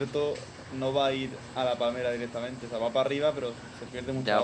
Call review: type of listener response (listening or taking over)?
taking over